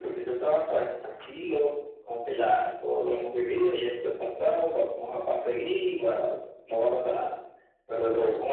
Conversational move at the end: listening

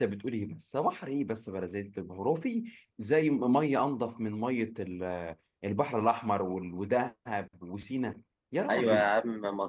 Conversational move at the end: taking over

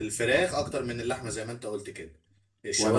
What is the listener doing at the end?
listening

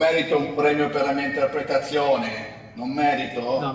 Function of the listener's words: taking over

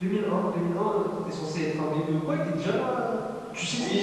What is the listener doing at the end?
taking over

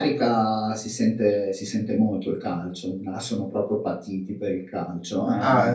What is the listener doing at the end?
taking over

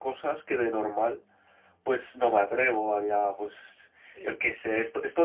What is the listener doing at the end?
listening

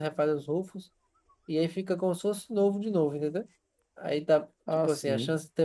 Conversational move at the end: listening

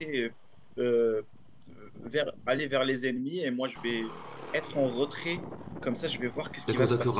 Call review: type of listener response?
taking over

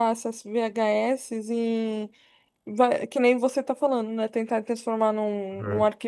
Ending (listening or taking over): listening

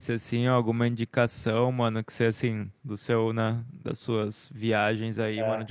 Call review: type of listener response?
listening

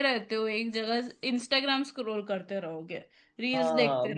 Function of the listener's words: taking over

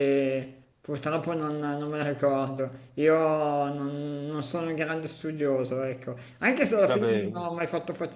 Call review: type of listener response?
listening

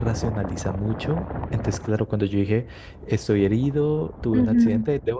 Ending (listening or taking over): listening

